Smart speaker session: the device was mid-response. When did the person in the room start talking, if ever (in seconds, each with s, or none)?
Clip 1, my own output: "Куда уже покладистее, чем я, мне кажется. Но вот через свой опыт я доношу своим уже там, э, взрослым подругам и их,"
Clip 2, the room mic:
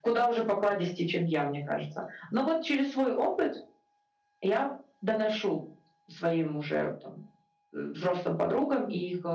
none